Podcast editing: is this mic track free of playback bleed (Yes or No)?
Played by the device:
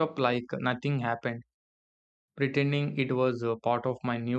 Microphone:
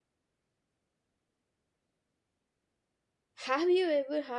Yes